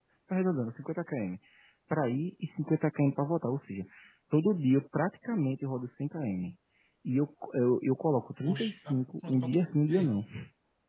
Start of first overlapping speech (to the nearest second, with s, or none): 8 s